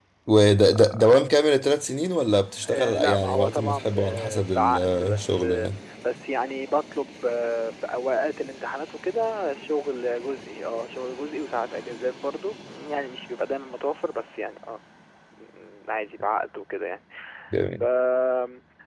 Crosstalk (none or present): present